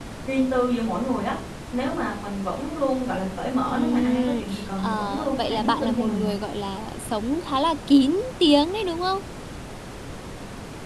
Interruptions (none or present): present